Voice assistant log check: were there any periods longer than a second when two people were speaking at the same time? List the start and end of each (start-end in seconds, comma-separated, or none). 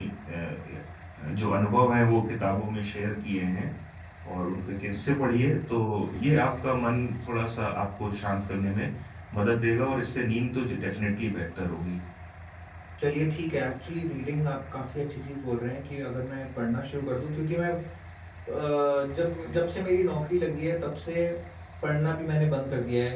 none